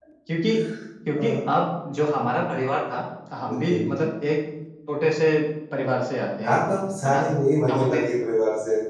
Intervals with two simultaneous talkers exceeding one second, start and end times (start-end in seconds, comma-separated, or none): none